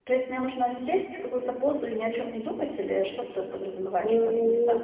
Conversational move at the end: taking over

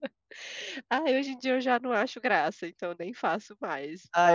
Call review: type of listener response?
taking over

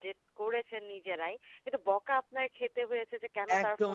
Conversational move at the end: taking over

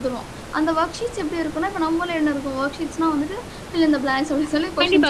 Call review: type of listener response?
taking over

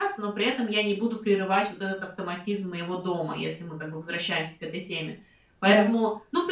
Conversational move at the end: listening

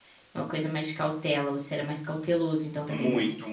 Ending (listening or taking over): taking over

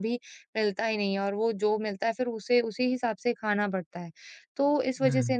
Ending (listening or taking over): listening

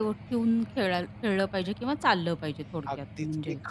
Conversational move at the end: taking over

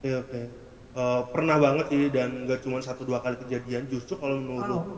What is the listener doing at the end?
listening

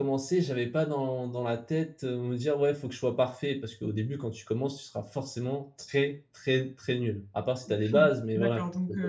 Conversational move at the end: taking over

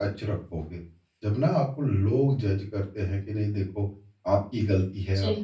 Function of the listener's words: listening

